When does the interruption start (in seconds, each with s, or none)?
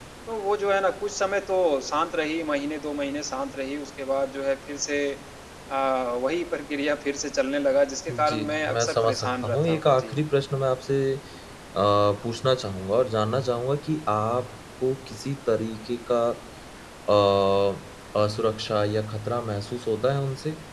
8.1 s